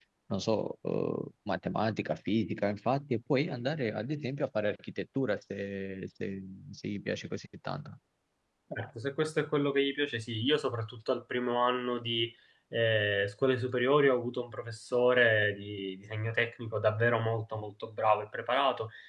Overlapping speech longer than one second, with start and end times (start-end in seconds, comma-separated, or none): none